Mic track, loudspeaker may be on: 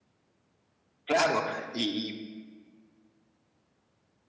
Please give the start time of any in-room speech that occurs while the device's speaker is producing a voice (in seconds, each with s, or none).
1.0 s